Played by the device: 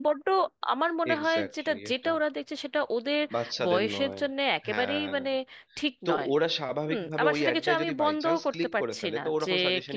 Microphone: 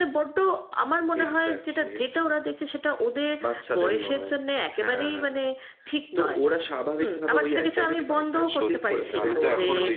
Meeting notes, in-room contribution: present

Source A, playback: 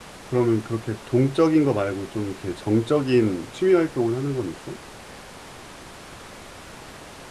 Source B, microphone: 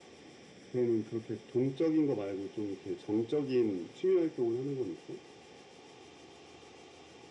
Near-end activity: none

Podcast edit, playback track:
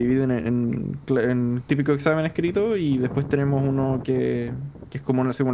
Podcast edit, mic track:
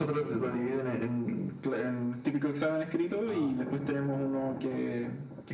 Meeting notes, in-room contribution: present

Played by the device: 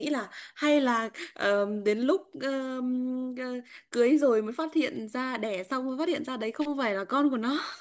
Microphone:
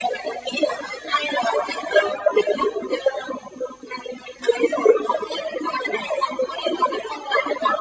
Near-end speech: none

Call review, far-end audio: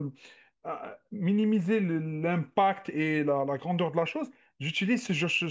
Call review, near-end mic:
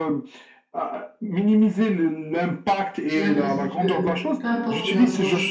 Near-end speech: present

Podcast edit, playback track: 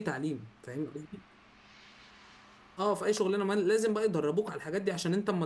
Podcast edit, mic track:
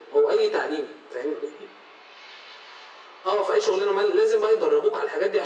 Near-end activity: none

